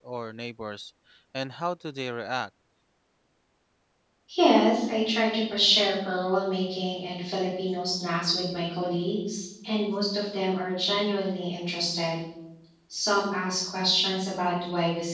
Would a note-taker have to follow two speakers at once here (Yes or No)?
No